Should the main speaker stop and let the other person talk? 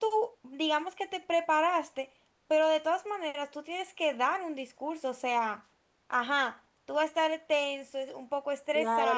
Yes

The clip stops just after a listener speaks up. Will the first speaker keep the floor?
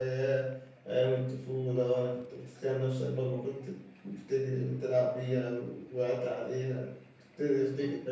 No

